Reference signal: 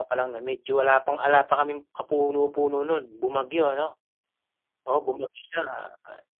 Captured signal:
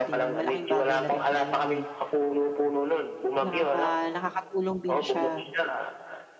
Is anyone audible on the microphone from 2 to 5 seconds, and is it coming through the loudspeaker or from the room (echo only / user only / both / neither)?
both